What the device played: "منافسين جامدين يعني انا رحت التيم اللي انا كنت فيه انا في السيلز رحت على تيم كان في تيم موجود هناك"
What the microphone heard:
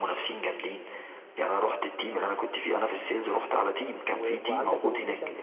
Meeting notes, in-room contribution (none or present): present